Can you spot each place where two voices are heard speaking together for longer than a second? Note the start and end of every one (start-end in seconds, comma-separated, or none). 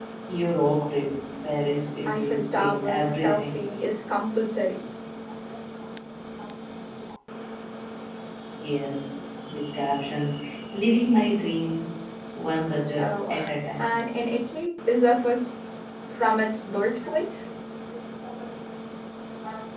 2.1-3.7